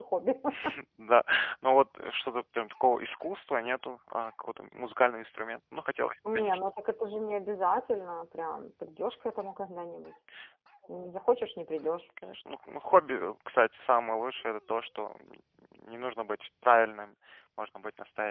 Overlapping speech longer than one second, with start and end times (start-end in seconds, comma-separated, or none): none